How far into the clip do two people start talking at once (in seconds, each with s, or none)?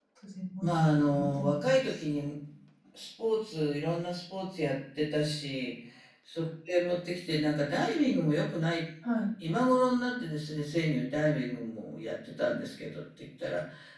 0.6 s